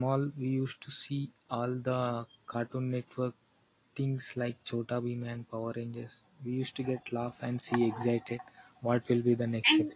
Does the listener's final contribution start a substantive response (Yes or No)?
Yes